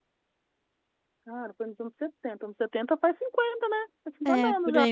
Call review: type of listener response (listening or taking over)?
taking over